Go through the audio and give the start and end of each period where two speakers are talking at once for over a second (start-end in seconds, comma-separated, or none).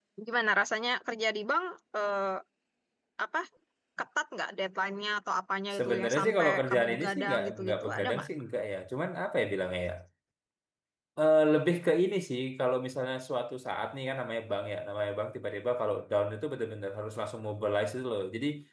5.8-8.3